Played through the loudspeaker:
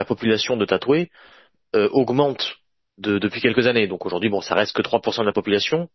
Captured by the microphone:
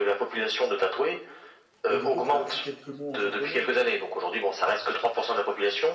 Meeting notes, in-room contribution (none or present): present